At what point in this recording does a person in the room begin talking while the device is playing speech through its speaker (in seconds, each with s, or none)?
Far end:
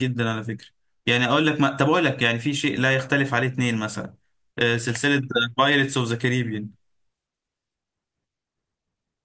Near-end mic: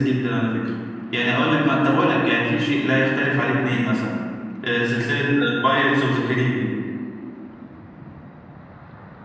none